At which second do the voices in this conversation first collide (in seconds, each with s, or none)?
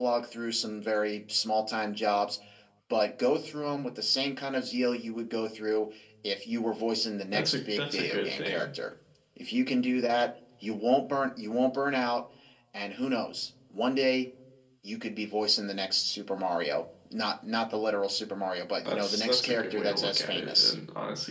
7.3 s